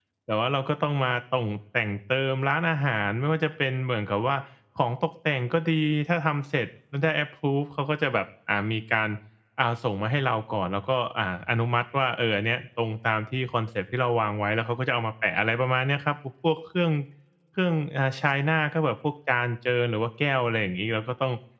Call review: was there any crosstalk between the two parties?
No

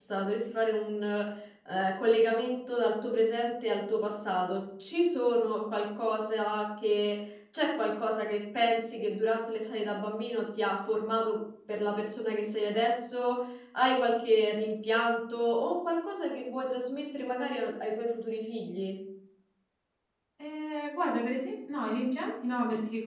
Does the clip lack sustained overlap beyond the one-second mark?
Yes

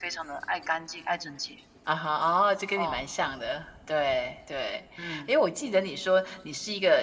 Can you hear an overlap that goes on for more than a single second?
No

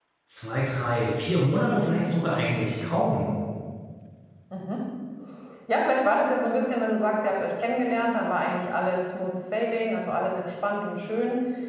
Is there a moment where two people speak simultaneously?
No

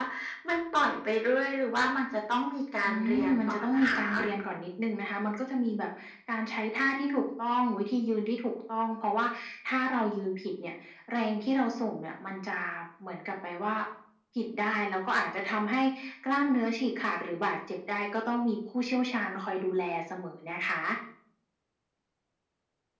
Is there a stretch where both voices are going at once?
Yes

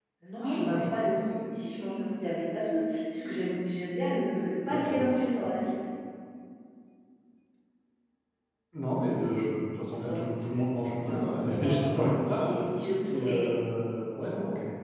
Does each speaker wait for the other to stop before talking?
No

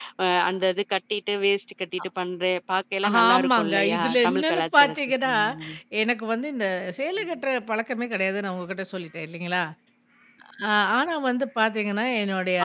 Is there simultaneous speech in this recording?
Yes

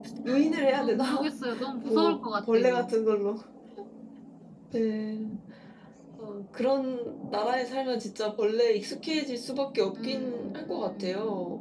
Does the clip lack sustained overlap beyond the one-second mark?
No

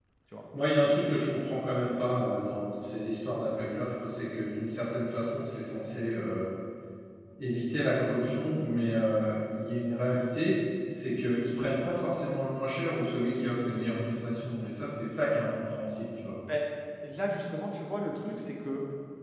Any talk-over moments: No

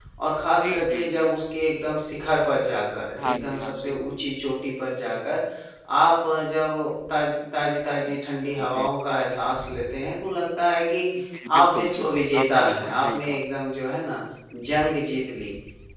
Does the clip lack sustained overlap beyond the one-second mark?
No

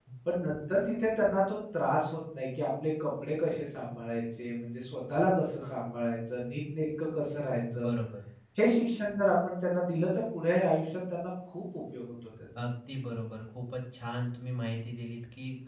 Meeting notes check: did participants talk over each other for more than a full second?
No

